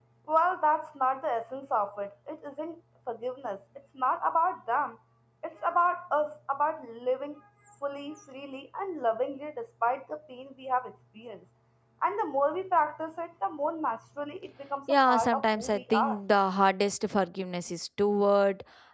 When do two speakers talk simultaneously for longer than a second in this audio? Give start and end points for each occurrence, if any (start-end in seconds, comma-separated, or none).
14.9-16.2